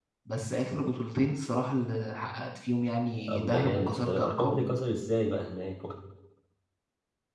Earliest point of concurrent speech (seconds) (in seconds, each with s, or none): 3.3 s